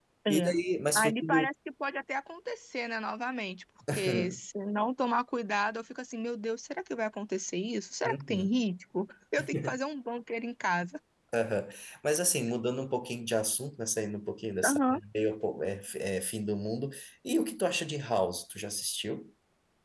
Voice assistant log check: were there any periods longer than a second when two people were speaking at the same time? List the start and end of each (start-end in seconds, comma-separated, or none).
none